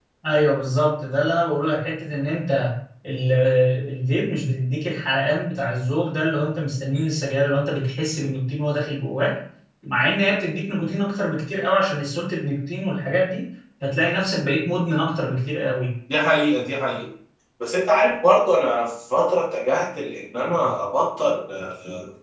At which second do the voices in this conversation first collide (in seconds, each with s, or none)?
none